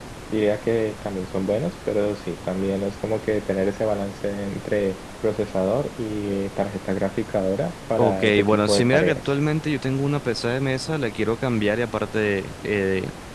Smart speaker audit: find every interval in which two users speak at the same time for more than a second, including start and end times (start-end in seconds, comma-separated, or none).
8.0-9.2